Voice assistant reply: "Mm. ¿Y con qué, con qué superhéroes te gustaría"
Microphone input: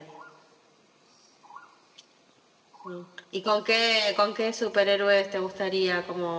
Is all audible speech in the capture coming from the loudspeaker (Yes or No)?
Yes